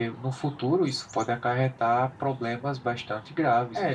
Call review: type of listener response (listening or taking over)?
taking over